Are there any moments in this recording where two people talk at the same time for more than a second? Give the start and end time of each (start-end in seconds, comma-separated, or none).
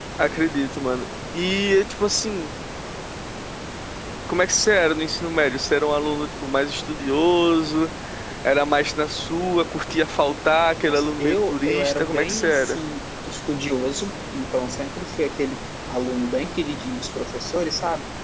10.8-12.8